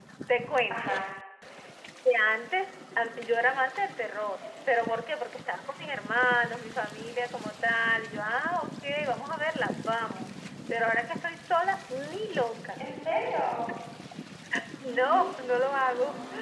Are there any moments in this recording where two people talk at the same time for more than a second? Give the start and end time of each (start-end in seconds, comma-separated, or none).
none